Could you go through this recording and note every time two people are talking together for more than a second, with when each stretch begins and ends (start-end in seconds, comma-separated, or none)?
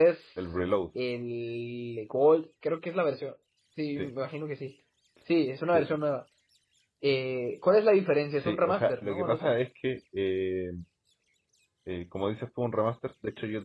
8.3-9.5